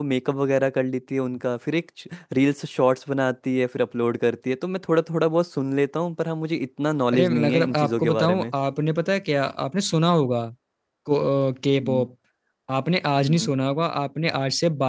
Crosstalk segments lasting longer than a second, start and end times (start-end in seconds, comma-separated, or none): 7.1-8.4